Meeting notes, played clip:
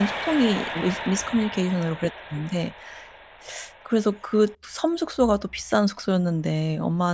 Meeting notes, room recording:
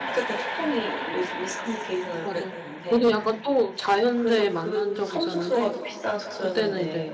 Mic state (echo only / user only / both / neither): both